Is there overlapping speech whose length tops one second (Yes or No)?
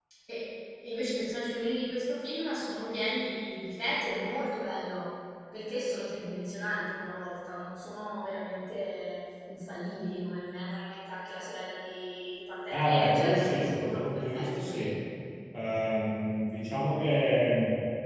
Yes